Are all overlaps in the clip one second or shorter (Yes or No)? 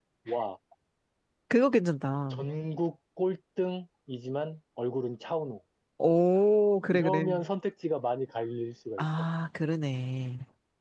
Yes